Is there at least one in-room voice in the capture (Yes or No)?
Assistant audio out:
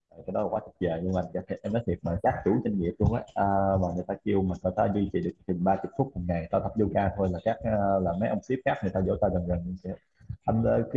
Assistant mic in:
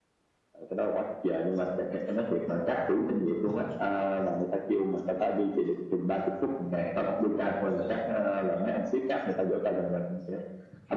No